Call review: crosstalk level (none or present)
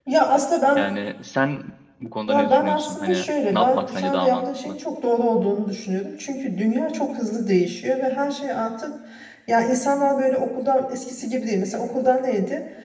present